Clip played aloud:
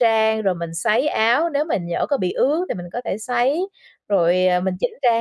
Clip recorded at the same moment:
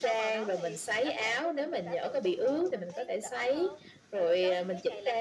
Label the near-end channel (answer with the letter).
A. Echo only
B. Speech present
B